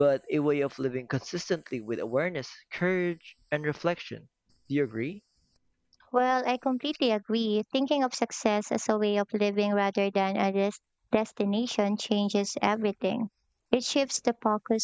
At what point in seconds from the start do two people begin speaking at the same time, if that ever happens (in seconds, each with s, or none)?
none